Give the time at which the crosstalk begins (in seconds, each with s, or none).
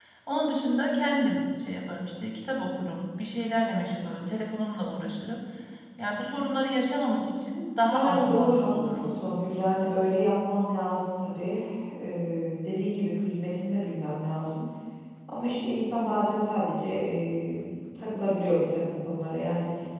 7.9 s